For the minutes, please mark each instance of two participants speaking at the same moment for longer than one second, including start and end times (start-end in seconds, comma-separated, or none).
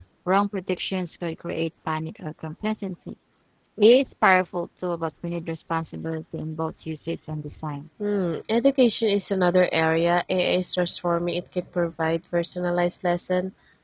none